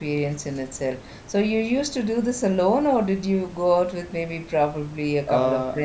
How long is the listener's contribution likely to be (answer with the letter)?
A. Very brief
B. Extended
B